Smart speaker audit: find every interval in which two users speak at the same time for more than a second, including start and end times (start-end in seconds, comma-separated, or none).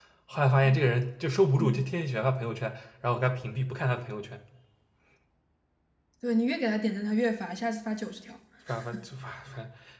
none